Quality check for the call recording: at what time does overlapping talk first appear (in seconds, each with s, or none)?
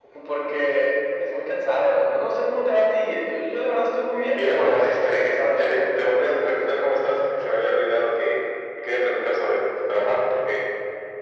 4.3 s